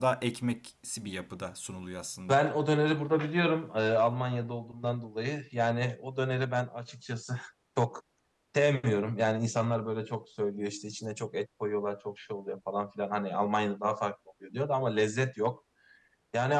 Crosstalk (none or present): none